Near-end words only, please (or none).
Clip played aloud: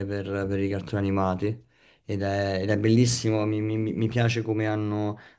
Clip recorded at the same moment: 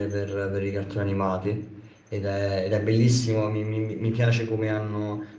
none